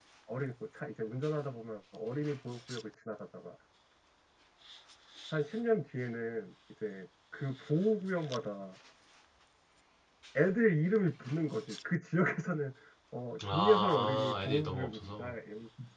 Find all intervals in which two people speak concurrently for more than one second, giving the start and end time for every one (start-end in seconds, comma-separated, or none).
13.5-15.3